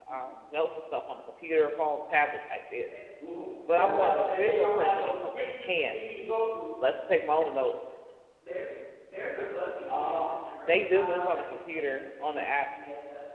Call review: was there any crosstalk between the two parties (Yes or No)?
Yes